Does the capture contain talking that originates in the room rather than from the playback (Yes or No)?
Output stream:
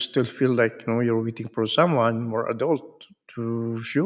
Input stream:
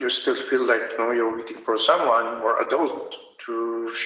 No